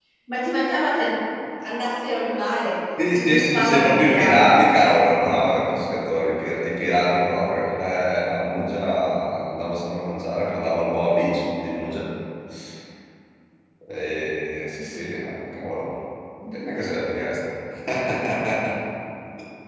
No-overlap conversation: No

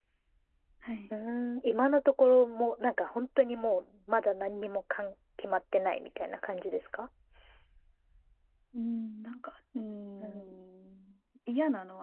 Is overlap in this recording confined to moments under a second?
Yes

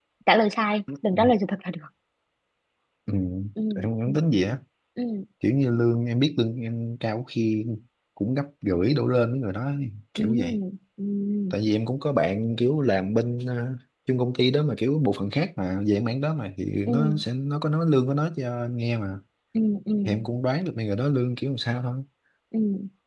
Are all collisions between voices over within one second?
Yes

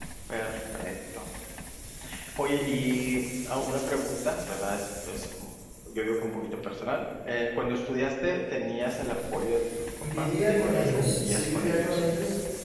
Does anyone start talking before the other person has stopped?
Yes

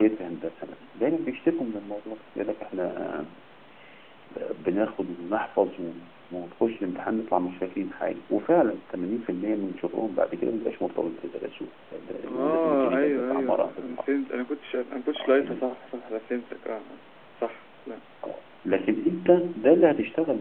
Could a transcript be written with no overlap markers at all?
No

